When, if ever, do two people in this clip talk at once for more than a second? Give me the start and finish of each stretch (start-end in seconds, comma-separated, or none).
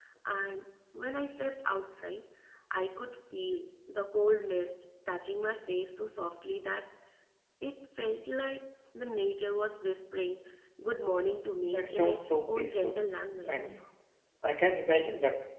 11.6-13.0